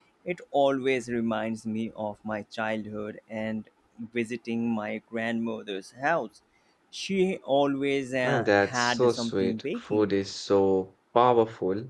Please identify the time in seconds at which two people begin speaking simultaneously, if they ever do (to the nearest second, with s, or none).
8 s